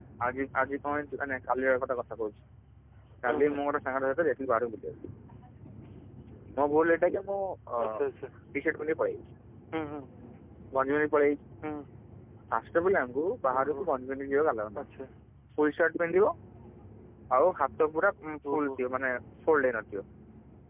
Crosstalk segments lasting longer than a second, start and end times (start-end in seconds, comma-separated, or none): none